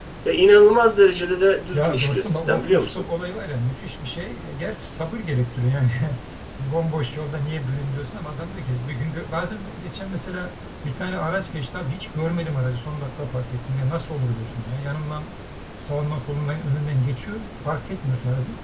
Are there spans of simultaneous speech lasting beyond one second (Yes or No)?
Yes